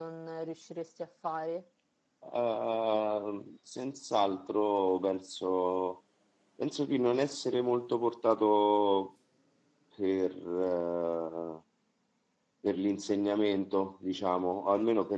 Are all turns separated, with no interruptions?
Yes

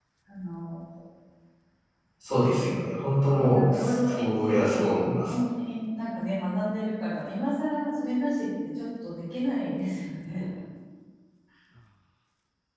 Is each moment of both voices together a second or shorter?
No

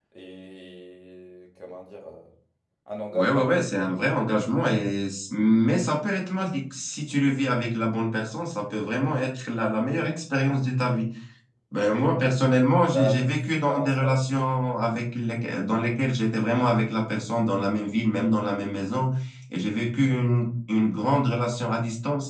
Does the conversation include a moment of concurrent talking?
Yes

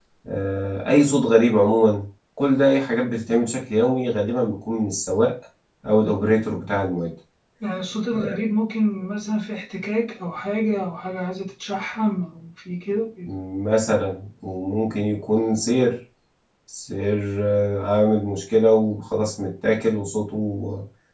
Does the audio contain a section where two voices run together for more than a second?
No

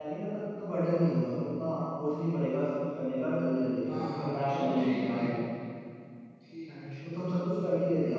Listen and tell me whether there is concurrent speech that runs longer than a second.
Yes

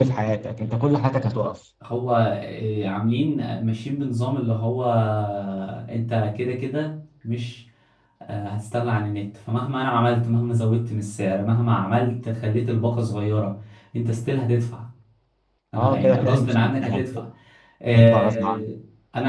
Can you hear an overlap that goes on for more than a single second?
Yes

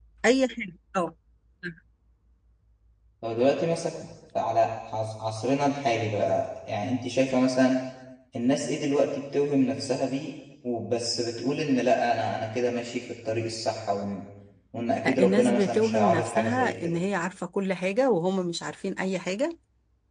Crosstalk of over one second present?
Yes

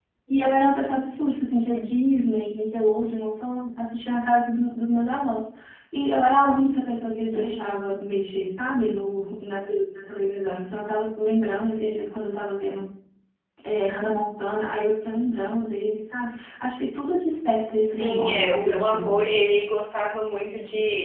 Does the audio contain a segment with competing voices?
Yes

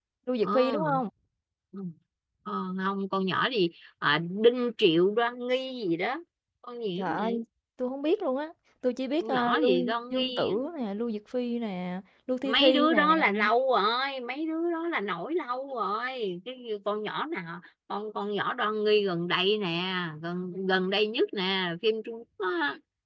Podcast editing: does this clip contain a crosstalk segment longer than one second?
Yes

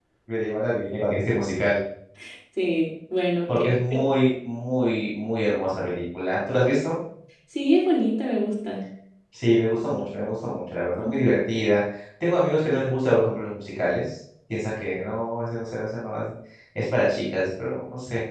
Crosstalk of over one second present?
No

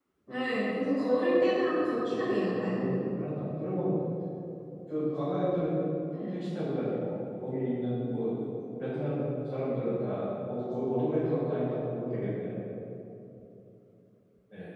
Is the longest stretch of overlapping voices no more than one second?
No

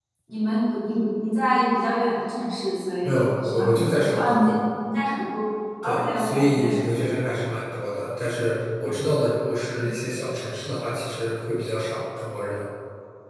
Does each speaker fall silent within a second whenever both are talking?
No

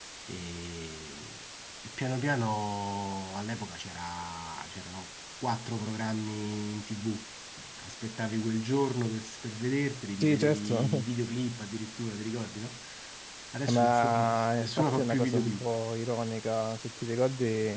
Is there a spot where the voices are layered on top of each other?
Yes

